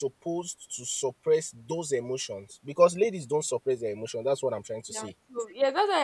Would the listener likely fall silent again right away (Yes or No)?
No